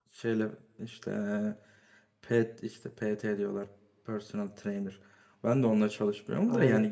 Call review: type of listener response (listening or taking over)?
listening